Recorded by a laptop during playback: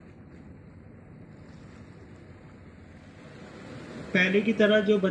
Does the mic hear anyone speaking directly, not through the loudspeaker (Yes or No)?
Yes